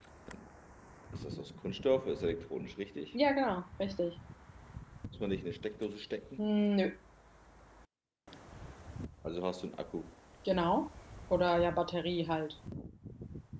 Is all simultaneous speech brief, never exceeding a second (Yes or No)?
Yes